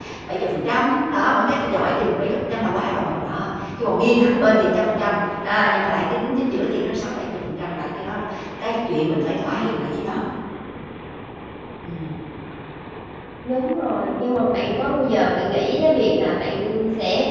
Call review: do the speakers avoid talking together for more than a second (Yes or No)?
Yes